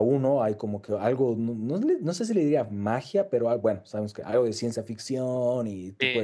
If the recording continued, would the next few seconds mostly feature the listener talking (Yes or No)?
Yes